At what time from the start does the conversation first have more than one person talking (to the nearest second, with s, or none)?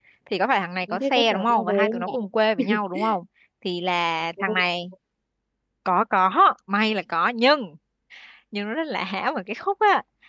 1 s